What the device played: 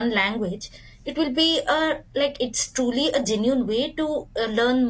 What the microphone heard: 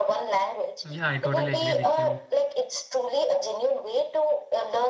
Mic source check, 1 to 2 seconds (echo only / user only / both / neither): both